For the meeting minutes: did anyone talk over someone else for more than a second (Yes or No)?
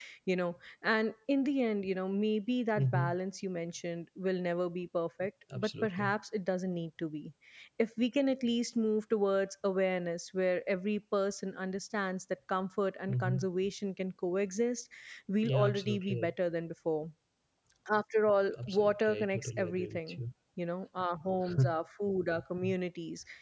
Yes